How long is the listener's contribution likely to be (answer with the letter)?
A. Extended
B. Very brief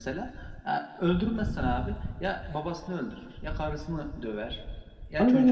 B